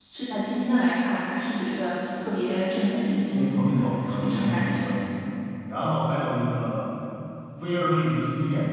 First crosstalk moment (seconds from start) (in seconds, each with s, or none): 3.3 s